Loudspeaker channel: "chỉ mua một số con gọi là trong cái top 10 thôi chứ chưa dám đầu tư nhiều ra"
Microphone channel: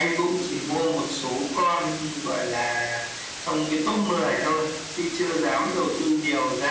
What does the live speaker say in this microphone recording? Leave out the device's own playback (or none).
none